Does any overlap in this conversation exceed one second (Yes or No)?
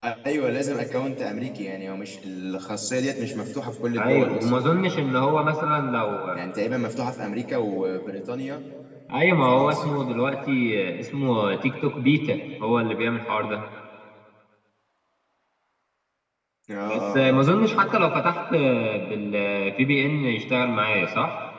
No